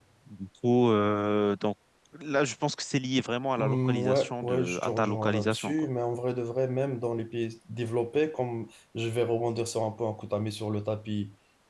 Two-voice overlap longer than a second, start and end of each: 3.6-5.9

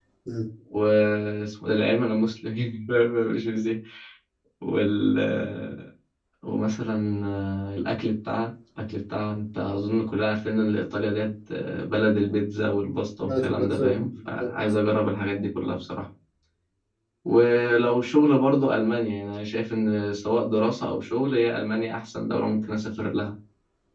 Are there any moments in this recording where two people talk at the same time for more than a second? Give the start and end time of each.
13.2-14.5

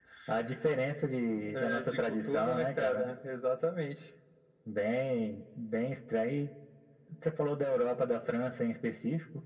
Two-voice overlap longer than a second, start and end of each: 1.5-3.1

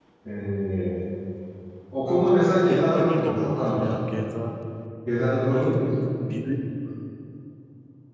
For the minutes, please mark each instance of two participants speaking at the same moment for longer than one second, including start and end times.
2.7-4.0

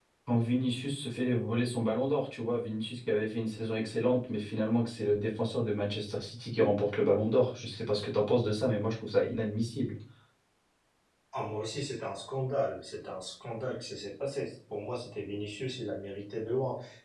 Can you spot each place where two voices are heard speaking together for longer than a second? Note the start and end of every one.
none

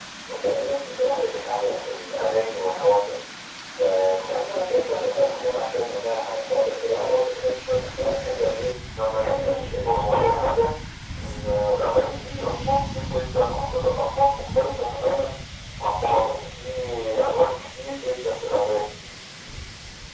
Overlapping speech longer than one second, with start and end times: 9.1-10.4

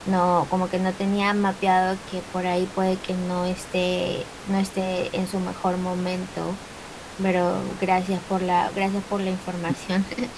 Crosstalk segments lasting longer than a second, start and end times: none

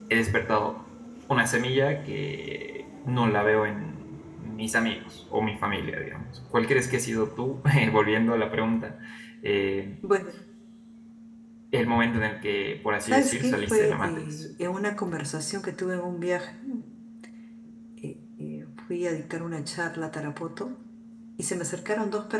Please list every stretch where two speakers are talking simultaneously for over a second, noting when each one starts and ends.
13.0-14.4

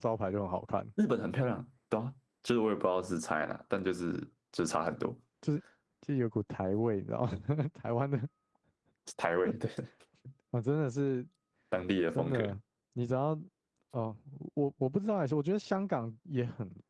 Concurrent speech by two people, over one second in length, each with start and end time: none

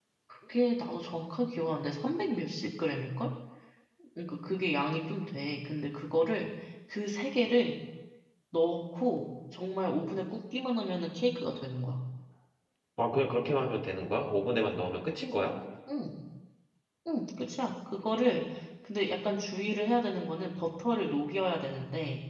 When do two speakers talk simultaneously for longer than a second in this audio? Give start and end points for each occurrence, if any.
none

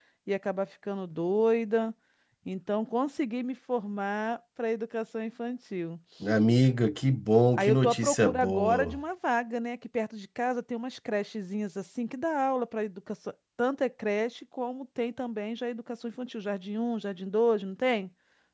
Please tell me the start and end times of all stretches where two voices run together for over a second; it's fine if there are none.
7.6-9.0

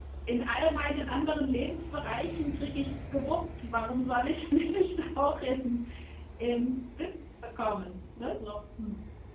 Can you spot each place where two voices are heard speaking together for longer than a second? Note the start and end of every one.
none

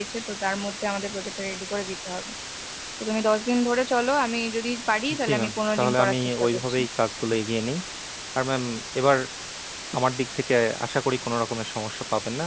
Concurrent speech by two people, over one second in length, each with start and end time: 5.2-6.8

